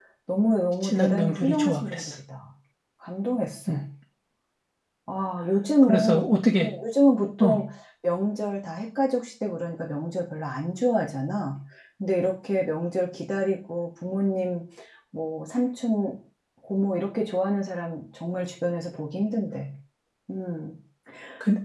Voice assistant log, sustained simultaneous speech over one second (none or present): present